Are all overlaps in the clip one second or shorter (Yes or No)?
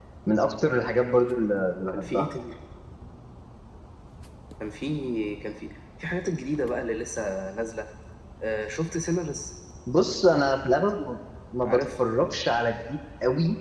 Yes